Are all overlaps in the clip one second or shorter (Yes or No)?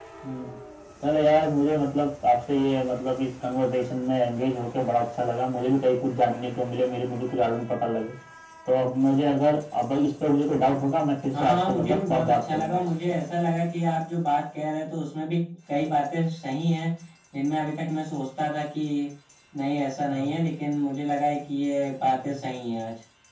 No